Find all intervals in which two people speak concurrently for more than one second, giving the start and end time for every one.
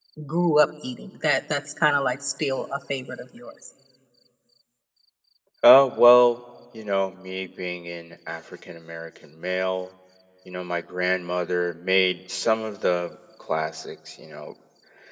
none

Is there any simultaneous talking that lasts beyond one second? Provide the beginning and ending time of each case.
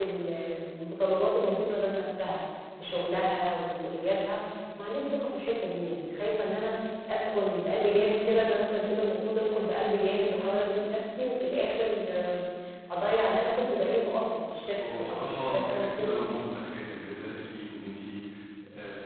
14.8-16.3

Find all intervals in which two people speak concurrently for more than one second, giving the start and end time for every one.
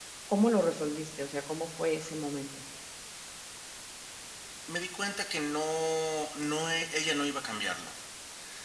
none

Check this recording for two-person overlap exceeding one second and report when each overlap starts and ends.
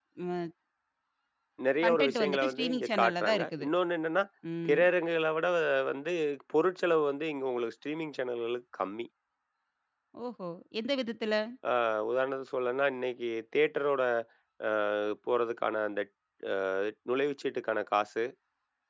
1.8-3.7

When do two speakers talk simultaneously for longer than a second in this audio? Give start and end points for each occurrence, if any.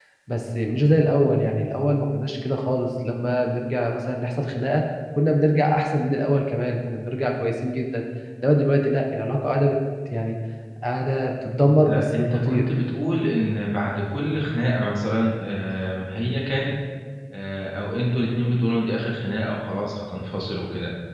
11.4-12.6

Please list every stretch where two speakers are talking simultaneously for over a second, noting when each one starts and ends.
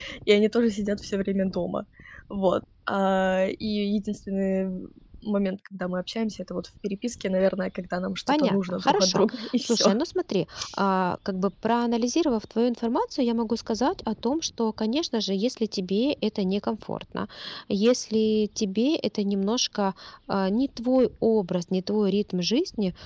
8.3-10.0

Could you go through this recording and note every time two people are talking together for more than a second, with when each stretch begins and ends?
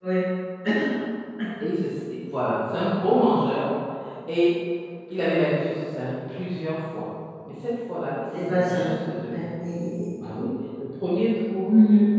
none

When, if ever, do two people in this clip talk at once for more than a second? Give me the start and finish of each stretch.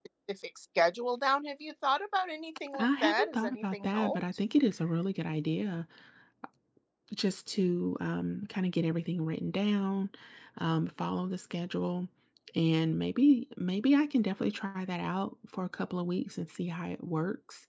2.8-4.2

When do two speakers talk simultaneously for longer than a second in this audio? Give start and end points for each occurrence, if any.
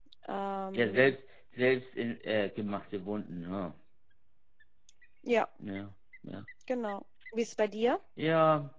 none

